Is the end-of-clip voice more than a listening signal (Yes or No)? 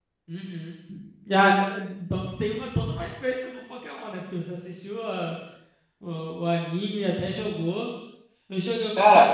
No